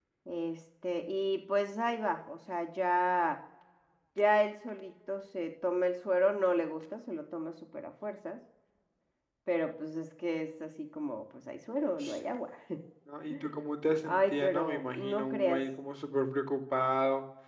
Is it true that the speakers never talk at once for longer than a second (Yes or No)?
No